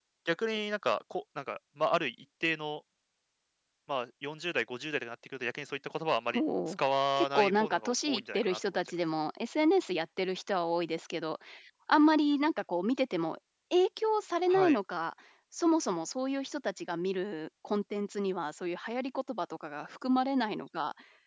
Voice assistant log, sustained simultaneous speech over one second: present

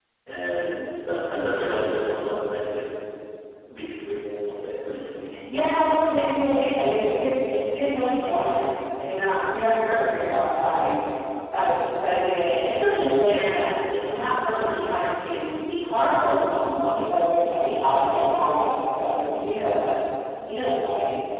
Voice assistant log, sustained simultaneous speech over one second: none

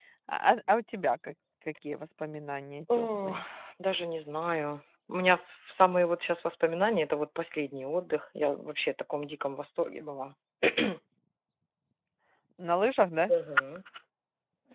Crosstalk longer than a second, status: none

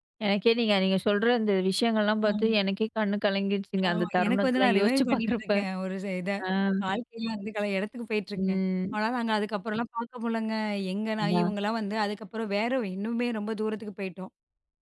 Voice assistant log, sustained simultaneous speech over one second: present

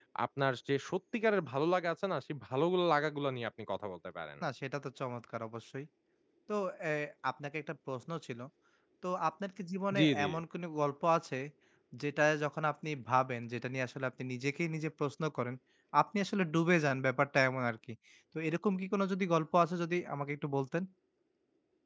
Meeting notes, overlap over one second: none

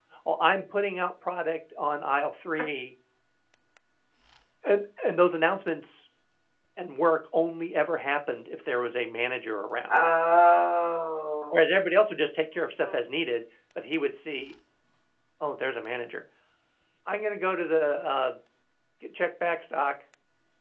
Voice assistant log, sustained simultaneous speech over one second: none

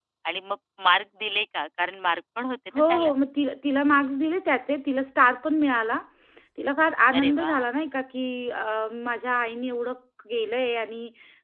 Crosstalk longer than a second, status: none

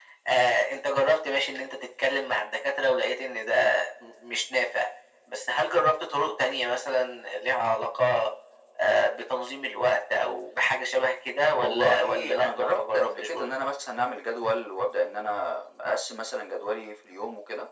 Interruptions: present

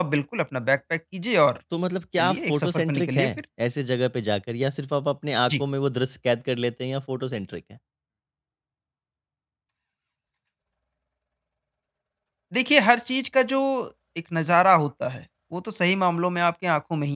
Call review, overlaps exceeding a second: present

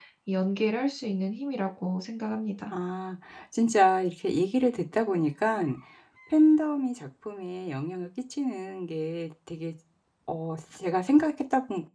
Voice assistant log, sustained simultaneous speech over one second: none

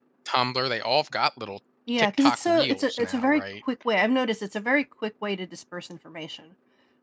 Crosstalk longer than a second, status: present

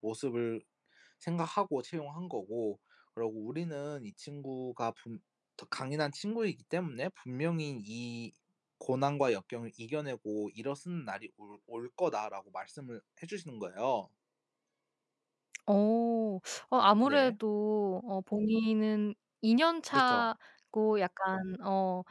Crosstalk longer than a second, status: none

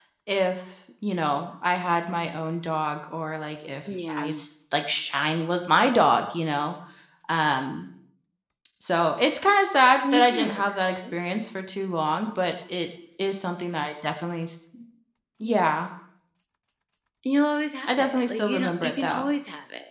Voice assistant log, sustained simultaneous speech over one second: present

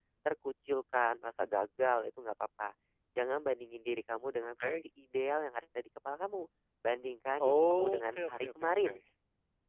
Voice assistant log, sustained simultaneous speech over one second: present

